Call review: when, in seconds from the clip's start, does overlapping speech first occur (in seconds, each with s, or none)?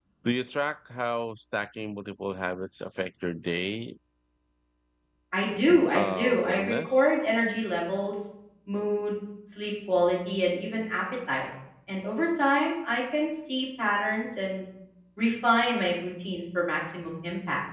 5.7 s